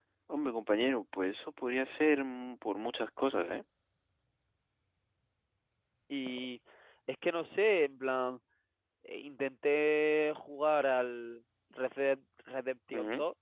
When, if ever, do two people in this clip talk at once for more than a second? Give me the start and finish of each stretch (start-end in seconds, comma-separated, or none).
none